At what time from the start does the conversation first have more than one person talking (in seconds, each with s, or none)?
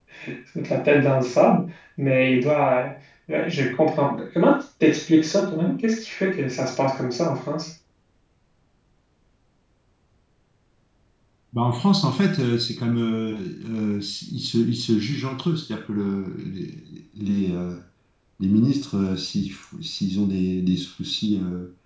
none